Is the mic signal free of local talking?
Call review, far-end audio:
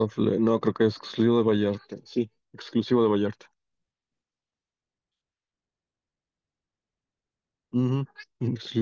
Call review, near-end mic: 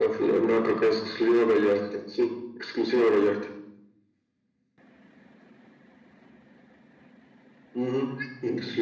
Yes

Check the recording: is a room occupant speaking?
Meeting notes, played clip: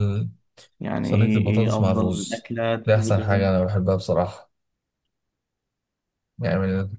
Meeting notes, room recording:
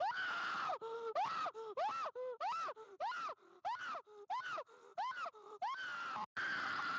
No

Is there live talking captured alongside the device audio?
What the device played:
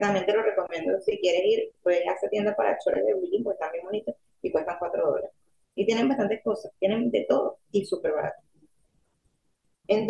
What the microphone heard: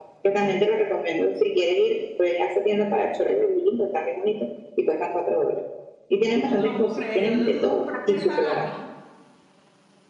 Yes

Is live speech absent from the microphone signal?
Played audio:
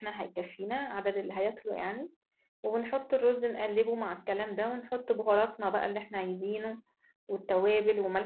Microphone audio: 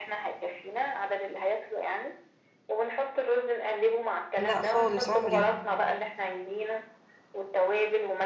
No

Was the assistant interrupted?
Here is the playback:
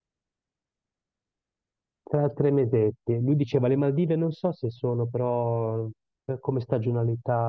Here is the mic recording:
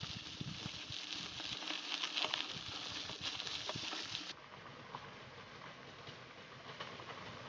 No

